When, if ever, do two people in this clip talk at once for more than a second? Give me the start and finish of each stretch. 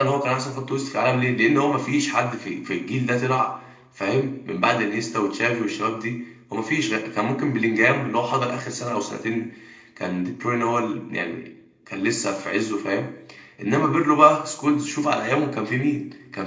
none

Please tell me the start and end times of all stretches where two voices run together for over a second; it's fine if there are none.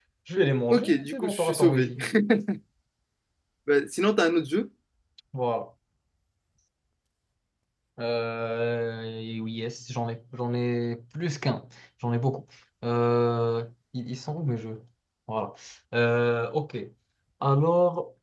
0.7-1.9

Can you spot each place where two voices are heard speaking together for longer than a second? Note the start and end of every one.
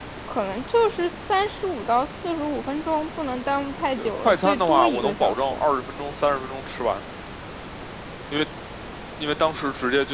4.0-5.6

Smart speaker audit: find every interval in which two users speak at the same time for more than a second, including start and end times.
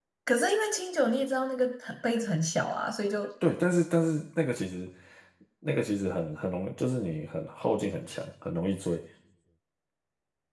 none

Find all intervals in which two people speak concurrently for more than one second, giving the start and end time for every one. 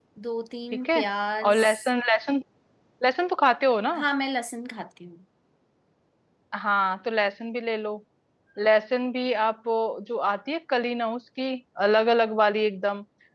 none

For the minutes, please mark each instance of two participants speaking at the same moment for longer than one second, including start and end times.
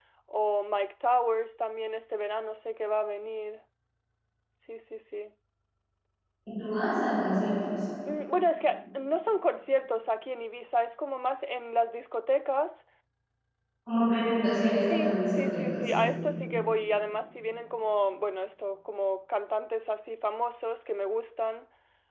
14.9-16.1

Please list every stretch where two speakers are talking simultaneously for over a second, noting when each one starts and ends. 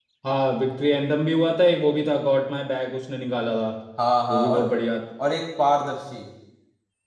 none

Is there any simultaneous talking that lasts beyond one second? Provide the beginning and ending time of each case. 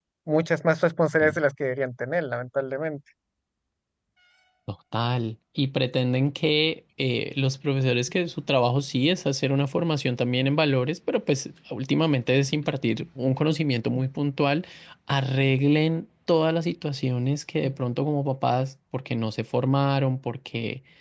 none

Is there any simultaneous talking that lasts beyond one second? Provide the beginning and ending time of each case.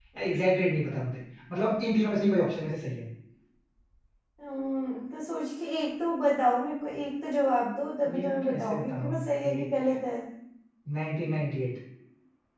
8.1-9.7

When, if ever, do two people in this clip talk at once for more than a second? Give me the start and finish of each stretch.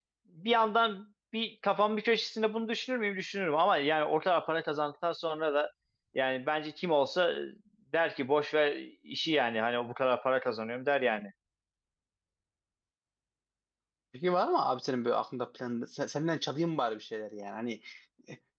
none

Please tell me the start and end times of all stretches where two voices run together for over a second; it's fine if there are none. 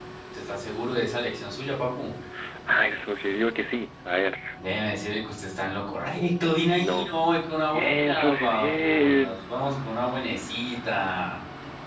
7.7-9.4

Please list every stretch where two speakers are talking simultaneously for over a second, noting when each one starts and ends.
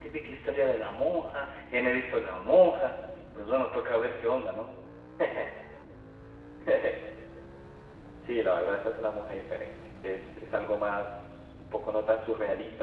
none

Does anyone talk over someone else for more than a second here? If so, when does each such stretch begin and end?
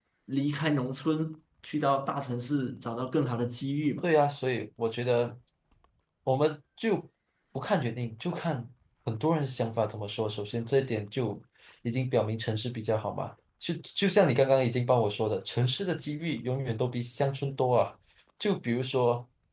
none

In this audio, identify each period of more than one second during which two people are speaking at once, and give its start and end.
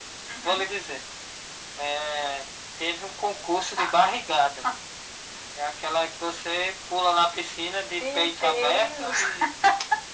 8.0-9.2

